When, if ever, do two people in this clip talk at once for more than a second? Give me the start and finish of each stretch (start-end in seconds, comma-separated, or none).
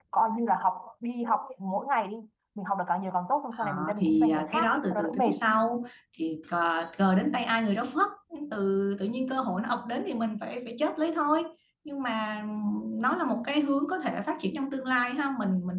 3.5-5.3